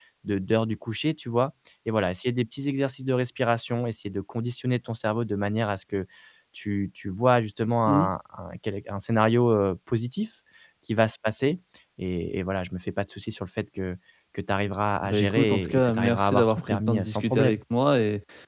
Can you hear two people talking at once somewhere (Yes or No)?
Yes